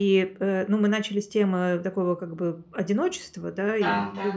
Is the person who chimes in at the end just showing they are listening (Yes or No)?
Yes